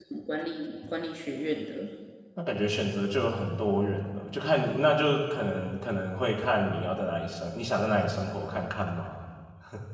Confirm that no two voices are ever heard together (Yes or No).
Yes